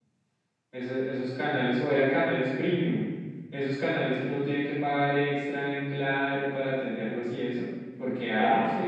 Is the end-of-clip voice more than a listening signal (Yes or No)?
No